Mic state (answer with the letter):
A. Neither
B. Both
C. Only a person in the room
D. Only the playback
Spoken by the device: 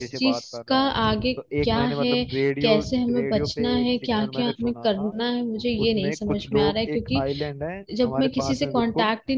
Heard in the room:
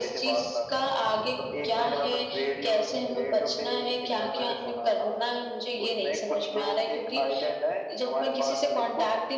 D